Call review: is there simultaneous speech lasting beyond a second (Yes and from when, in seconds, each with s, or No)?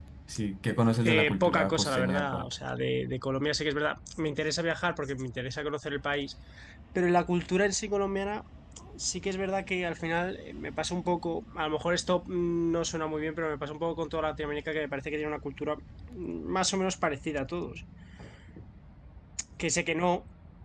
Yes, from 1.0 s